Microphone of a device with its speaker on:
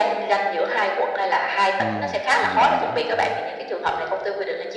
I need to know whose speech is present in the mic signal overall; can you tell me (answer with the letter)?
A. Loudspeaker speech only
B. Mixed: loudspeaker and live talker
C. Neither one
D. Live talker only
B